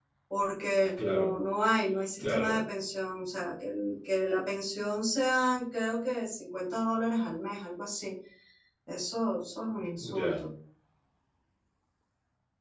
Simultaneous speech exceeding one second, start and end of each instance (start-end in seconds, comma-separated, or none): none